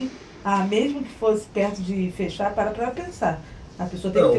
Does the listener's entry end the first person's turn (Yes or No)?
Yes